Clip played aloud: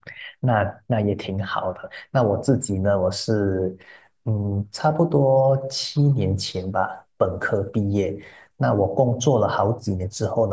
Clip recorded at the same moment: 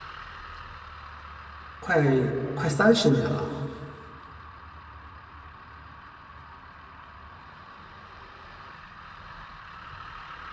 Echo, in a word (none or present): none